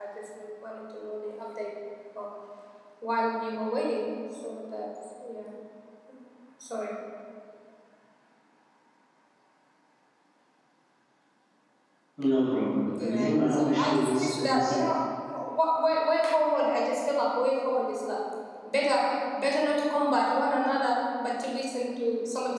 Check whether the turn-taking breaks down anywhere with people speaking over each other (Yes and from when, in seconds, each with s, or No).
Yes, from 12.8 s